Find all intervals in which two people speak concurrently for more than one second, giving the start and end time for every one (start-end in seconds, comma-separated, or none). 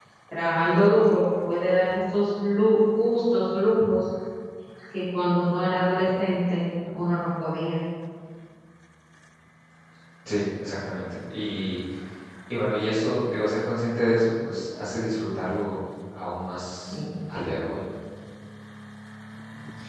none